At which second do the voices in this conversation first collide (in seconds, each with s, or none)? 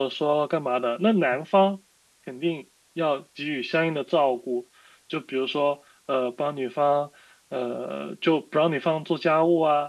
none